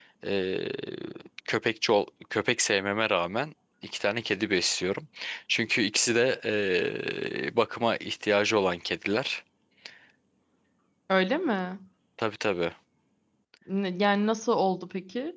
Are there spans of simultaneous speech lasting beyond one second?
No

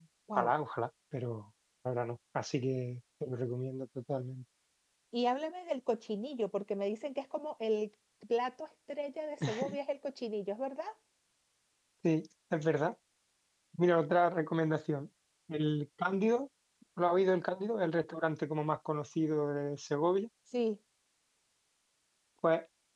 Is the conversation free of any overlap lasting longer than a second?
Yes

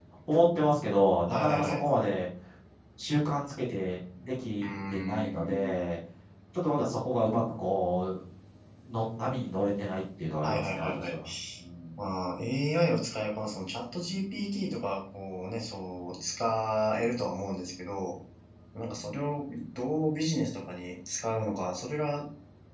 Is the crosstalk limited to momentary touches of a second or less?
No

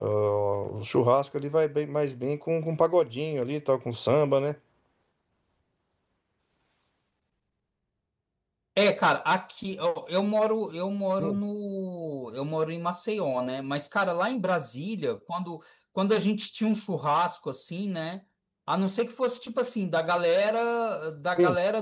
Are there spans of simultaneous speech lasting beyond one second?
No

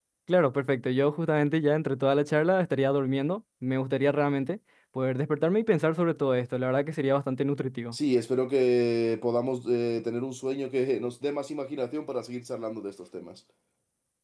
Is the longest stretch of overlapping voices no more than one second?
Yes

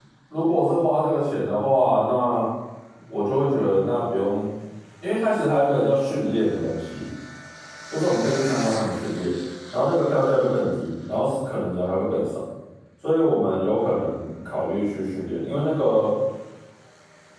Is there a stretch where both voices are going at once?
No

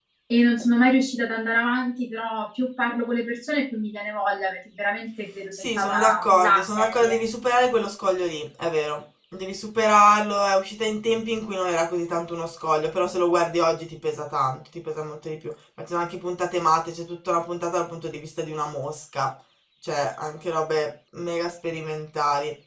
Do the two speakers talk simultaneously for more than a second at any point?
Yes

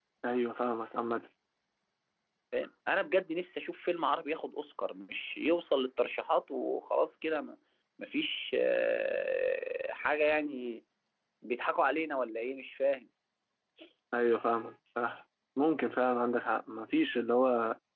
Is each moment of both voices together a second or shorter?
Yes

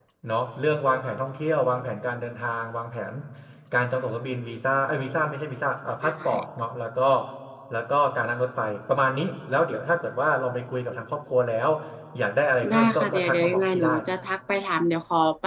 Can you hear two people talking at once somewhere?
Yes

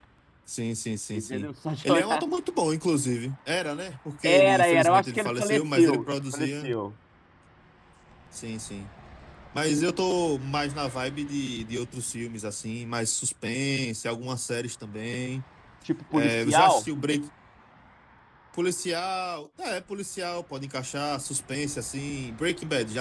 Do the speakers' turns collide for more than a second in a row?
Yes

